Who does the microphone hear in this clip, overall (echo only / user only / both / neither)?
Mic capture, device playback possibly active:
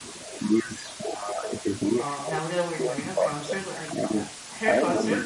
both